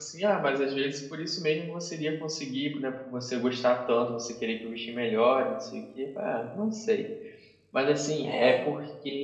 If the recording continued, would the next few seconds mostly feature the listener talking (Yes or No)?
No